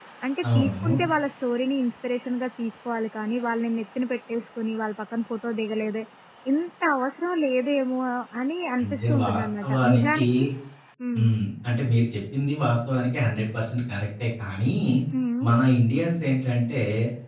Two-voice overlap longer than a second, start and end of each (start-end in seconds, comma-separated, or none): 8.8-10.2